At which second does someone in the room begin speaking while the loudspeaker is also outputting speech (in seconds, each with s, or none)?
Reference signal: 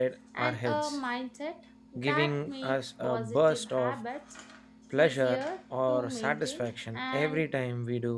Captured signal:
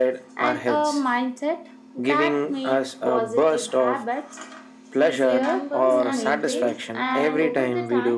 5.2 s